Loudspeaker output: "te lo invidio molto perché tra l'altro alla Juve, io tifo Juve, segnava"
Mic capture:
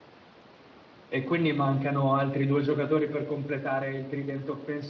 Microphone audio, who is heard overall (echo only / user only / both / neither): user only